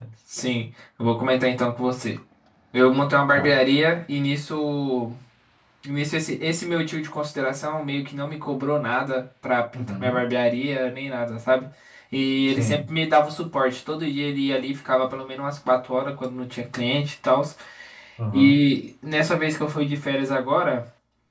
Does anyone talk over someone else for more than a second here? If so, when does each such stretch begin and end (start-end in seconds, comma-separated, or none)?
none